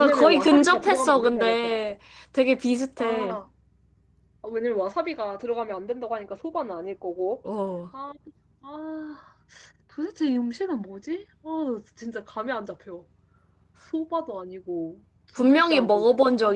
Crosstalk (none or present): present